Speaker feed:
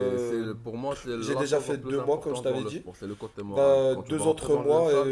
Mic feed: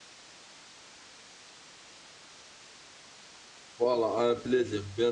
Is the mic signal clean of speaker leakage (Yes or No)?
Yes